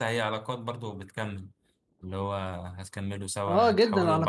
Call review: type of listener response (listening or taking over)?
taking over